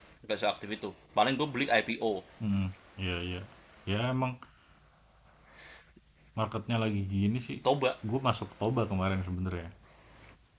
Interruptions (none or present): none